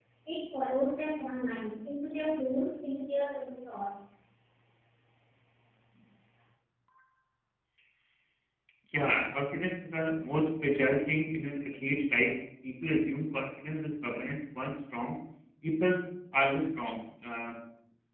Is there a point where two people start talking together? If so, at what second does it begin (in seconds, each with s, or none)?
none